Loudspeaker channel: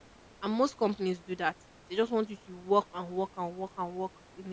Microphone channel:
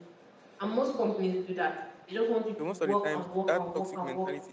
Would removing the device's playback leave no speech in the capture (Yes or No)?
No